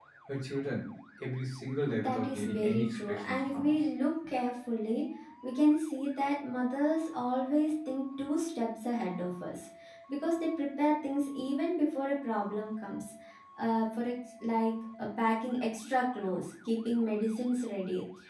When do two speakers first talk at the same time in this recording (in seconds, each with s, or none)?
2.0 s